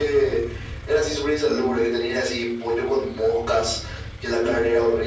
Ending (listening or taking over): listening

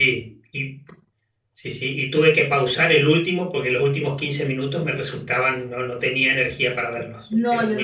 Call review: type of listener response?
taking over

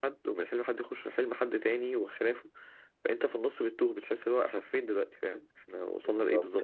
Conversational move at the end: taking over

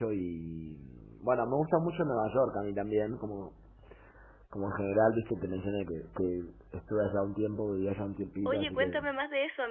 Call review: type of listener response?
taking over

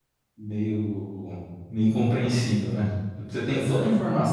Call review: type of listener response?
listening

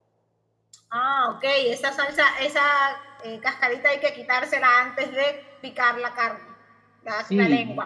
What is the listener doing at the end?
taking over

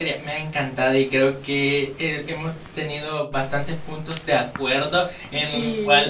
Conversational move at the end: listening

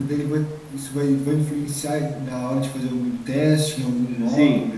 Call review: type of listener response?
taking over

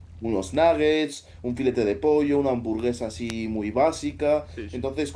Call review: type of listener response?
listening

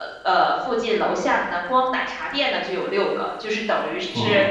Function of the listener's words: listening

